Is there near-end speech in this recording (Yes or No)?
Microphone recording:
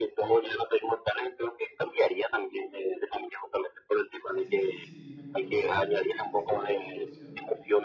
Yes